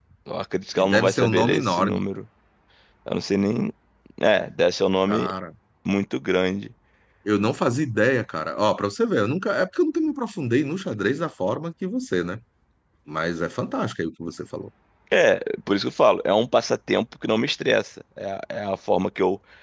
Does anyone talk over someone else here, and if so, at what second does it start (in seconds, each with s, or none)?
0.8 s